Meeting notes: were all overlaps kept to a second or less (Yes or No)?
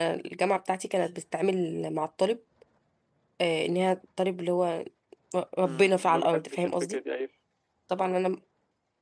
No